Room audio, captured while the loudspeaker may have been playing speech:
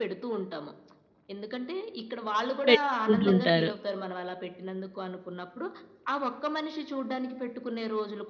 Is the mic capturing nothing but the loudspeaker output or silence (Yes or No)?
No